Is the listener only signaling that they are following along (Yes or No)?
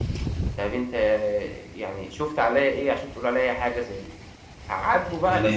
No